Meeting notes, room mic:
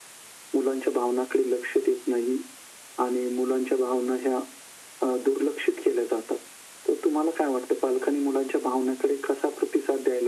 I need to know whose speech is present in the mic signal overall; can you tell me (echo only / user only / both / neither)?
echo only